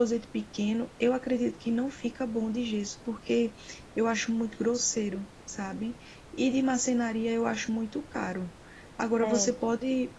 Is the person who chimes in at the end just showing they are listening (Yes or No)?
Yes